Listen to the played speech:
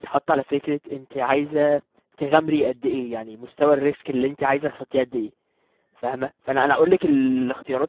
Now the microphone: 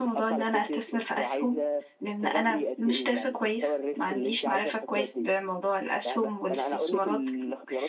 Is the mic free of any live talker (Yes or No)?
No